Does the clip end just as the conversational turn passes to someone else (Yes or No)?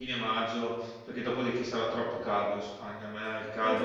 Yes